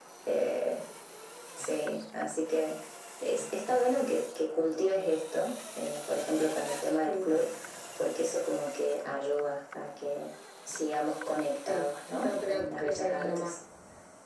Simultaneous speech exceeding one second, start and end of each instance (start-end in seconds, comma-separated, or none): 12.2-13.6